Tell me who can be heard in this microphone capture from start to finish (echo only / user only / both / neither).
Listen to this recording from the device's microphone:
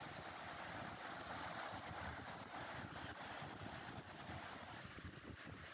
neither